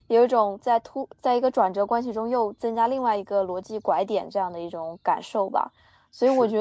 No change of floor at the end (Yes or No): Yes